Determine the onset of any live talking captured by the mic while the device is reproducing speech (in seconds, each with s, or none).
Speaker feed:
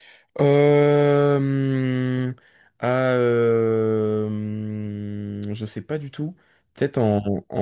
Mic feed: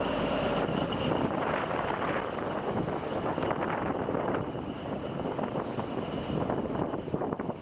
none